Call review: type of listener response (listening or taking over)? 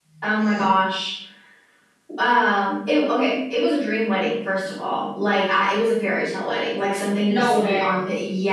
listening